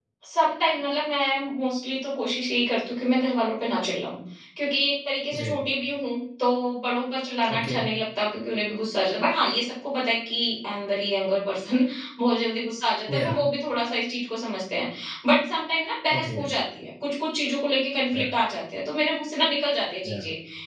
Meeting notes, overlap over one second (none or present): none